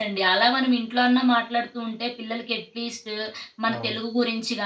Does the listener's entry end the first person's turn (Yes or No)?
No